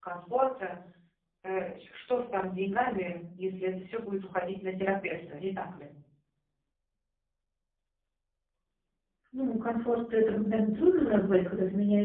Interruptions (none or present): none